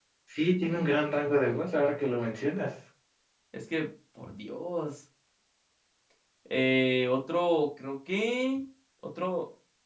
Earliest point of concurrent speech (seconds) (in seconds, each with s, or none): none